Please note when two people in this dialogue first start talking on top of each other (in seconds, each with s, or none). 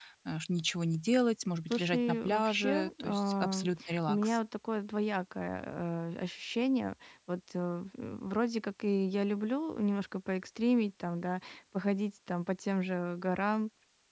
1.7 s